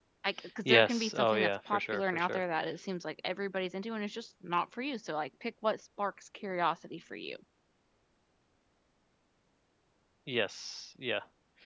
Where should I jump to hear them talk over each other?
0.6 s

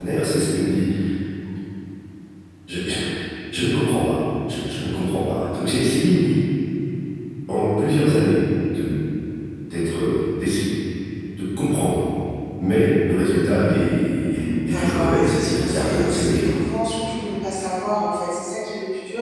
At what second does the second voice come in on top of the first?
14.7 s

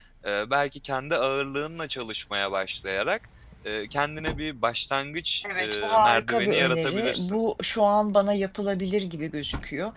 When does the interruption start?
5.4 s

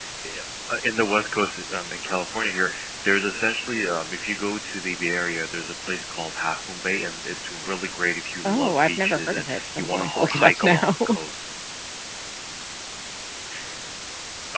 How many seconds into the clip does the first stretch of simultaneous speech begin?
8.4 s

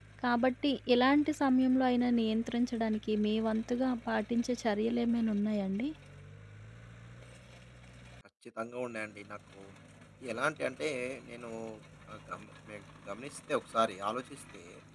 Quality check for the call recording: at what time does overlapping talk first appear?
none

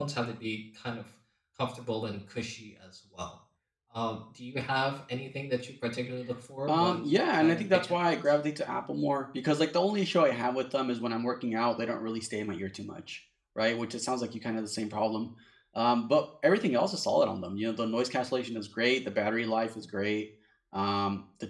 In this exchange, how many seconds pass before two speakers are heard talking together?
6.7 s

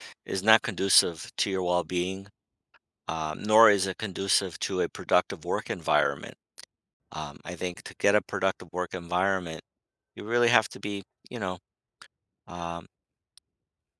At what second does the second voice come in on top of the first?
none

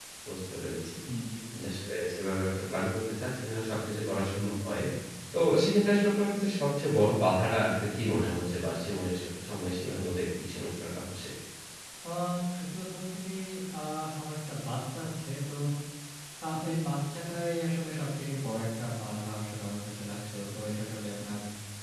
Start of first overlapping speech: none

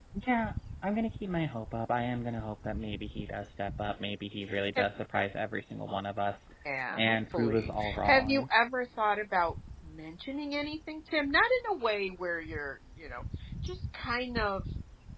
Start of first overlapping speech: 6.9 s

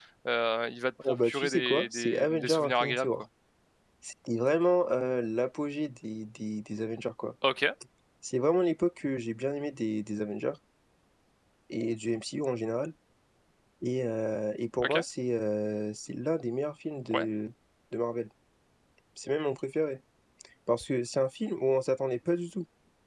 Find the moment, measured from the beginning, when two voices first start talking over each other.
1.1 s

